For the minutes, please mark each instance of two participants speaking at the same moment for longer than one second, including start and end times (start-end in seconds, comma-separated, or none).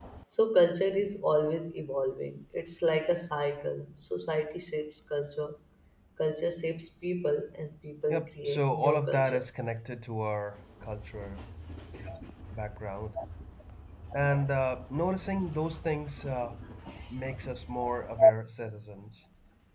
8.1-9.4